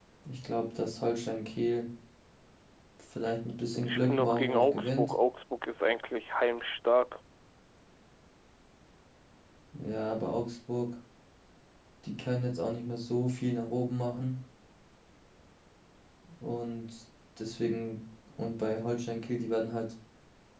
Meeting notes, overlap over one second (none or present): present